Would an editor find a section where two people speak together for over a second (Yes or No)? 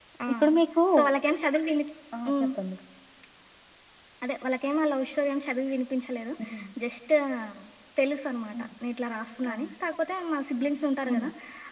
No